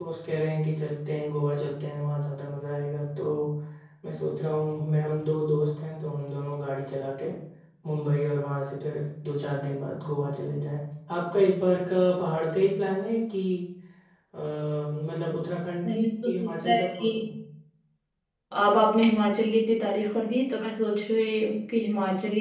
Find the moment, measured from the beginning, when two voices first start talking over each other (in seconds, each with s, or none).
15.8 s